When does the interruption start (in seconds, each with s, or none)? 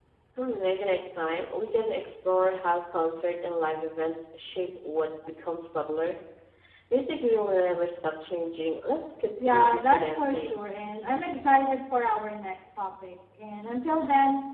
9.4 s